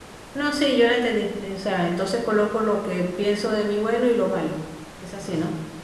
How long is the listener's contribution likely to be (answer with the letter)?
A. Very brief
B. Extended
B